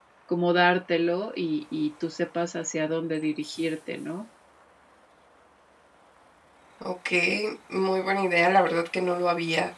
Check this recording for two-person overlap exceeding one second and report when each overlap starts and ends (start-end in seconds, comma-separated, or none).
none